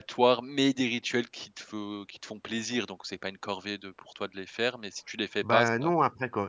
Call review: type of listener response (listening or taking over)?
taking over